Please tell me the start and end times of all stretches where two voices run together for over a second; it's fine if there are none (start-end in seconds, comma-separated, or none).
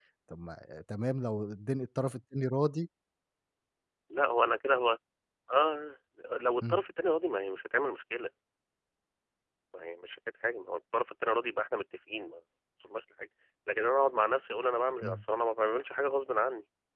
none